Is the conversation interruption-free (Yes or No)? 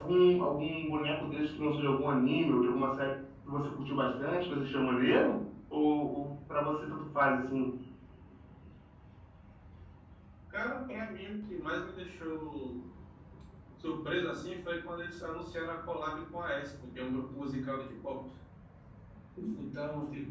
Yes